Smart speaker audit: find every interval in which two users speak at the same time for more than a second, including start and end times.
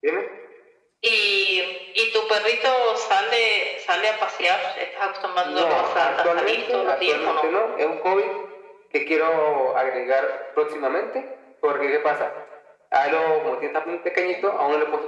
5.4-7.5

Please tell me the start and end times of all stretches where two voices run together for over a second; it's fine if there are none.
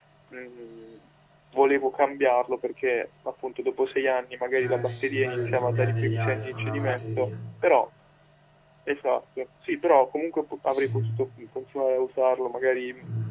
4.6-7.3

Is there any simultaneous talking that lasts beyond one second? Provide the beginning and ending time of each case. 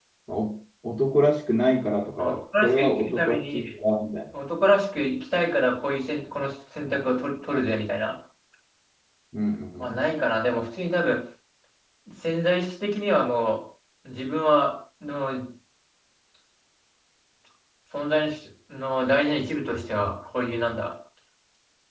2.2-3.7

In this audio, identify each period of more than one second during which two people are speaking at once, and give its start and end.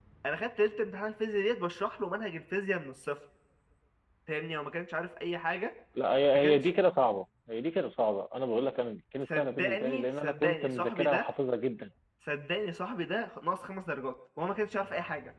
9.3-11.3

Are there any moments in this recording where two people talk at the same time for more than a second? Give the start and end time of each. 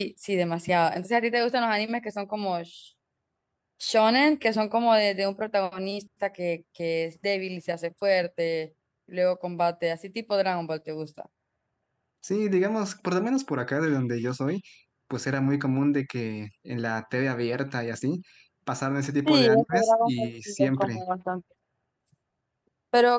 19.2-21.0

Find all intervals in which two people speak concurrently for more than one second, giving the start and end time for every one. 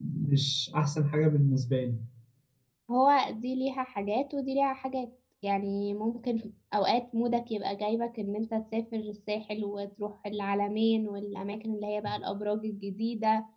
none

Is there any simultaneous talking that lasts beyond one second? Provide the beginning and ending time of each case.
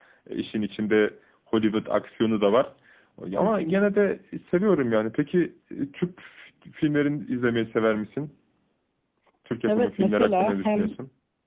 9.7-11.0

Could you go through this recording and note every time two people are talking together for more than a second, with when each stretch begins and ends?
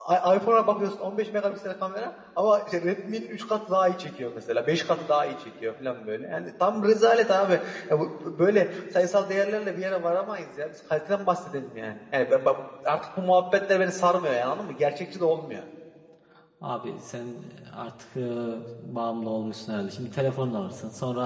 none

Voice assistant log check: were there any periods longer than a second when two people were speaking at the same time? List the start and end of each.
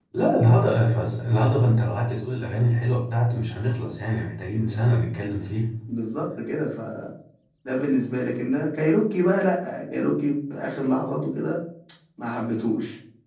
none

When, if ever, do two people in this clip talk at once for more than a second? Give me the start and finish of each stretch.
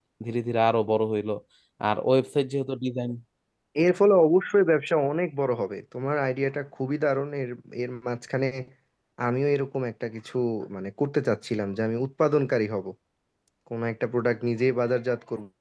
none

